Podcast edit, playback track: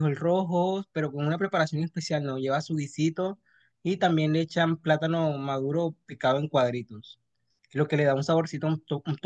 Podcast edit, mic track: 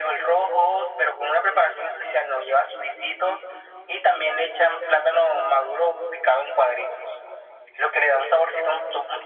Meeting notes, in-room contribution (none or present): none